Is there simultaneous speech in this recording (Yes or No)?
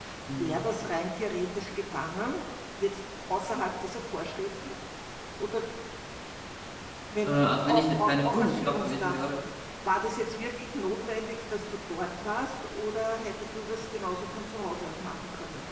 Yes